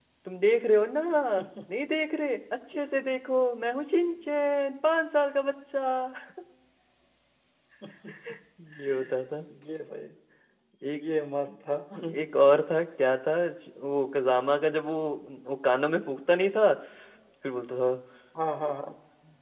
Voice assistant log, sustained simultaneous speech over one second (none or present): none